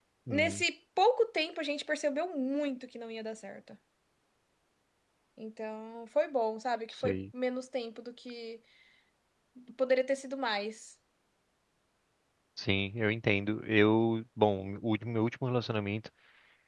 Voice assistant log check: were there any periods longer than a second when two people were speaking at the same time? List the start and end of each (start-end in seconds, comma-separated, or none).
none